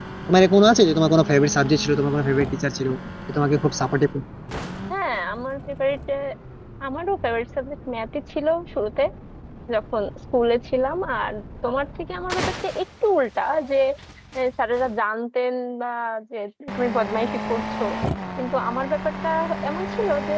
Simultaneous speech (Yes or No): No